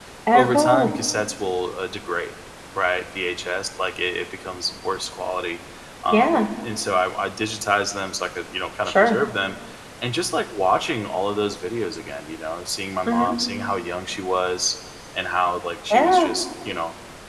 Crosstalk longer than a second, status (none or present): none